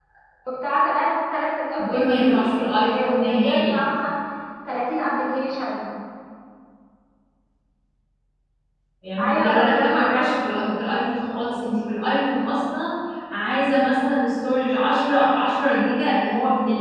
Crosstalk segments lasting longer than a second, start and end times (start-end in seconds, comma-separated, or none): 1.8-3.8, 9.2-10.6